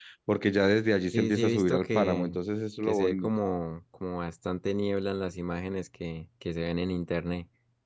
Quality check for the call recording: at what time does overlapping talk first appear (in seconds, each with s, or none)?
1.1 s